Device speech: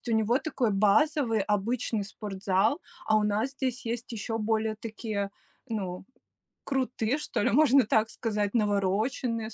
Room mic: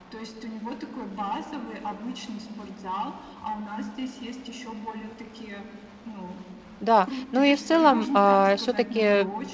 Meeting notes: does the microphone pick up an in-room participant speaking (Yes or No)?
Yes